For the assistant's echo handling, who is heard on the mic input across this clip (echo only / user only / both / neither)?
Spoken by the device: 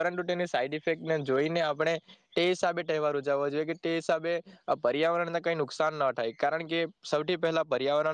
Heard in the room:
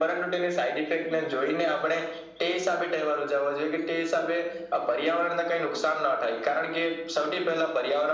echo only